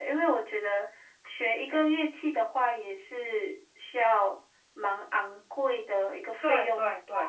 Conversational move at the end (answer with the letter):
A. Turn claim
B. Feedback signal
A